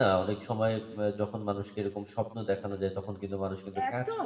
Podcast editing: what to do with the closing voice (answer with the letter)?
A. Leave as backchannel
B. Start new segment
B